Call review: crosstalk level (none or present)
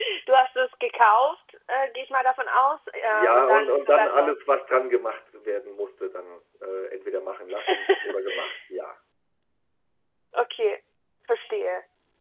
present